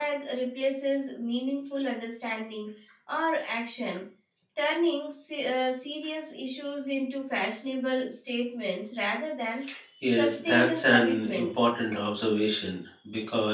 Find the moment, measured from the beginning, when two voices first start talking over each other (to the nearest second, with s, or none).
10 s